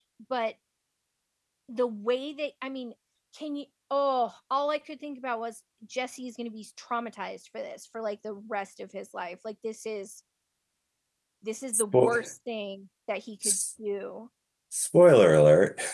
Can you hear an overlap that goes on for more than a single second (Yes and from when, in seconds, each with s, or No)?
No